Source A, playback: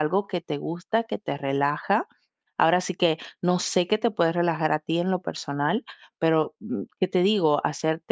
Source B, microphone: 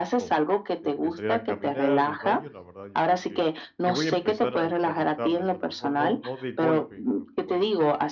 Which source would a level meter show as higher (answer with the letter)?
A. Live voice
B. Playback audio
B